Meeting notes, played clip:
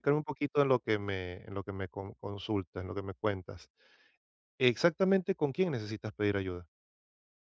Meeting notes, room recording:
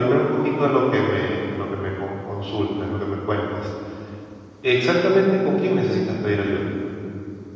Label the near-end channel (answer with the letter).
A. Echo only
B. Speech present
A